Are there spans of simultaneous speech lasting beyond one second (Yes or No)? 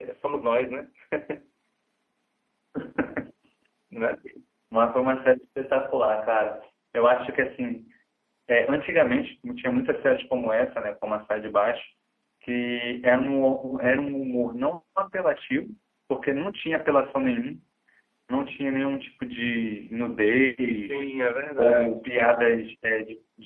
No